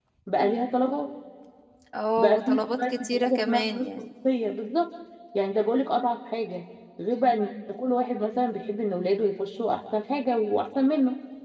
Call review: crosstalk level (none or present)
present